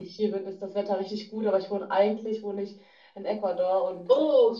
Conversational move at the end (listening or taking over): listening